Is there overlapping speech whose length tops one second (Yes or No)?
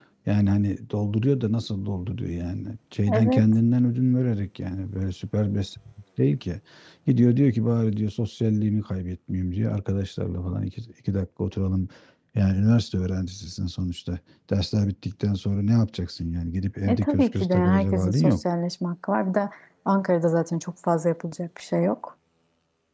Yes